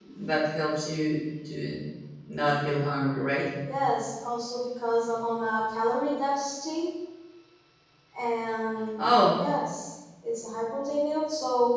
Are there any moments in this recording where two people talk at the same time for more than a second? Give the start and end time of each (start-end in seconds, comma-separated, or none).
none